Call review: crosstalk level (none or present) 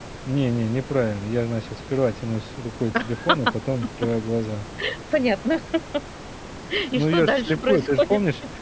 present